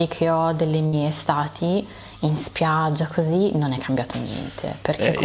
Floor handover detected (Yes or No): Yes